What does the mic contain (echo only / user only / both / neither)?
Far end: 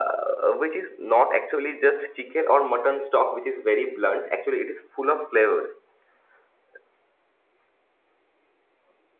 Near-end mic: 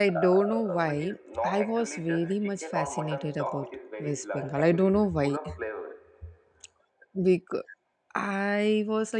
both